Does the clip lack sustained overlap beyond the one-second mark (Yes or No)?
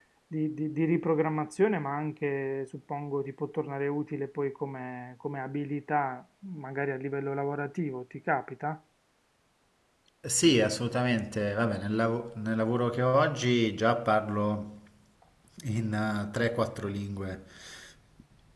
Yes